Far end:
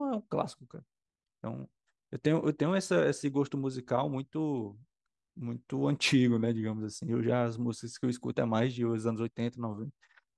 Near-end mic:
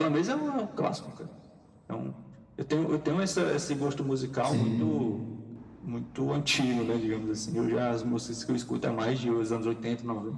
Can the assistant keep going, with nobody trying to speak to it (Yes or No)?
No